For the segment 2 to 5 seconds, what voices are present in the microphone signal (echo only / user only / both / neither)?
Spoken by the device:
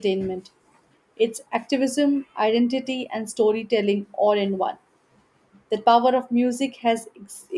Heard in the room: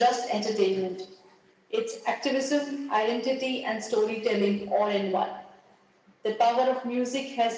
echo only